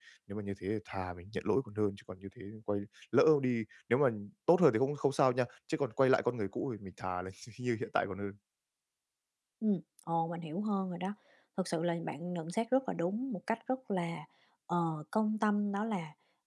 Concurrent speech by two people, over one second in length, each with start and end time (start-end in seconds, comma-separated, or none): none